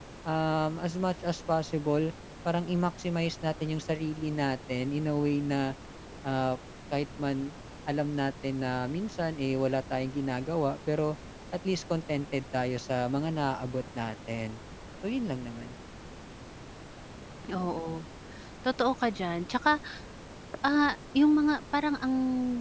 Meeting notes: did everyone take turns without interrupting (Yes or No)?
Yes